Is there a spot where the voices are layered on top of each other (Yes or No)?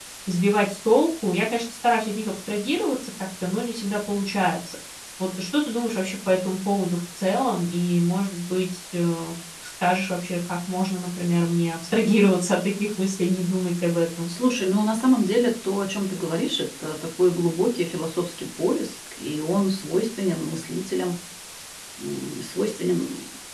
No